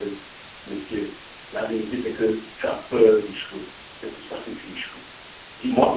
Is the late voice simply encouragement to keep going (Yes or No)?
Yes